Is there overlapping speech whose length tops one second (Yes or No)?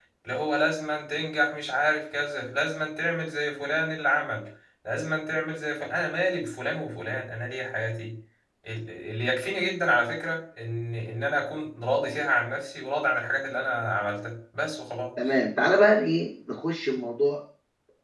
No